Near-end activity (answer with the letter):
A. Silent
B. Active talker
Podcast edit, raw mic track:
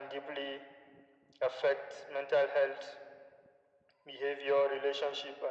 A